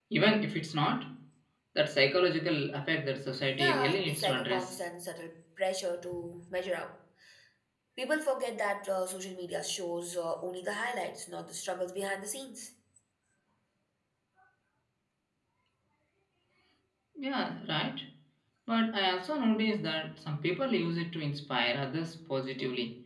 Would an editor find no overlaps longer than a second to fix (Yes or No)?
No